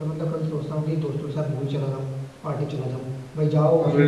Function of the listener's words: listening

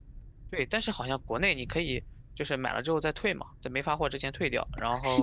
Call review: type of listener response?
taking over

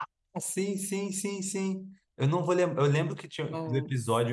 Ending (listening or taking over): listening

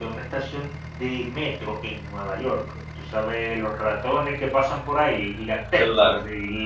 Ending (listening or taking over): listening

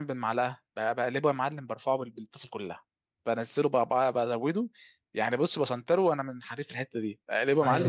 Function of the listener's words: taking over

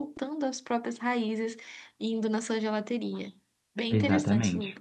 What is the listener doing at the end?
taking over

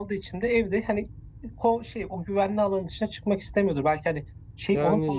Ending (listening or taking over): taking over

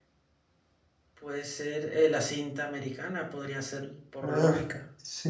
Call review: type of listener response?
taking over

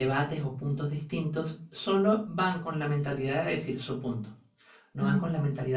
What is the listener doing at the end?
listening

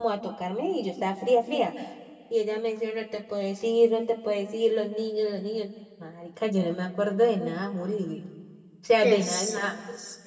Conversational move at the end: taking over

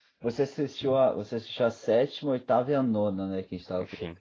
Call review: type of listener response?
taking over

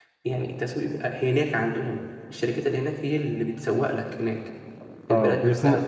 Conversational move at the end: taking over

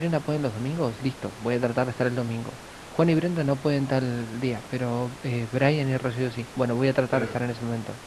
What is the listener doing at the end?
listening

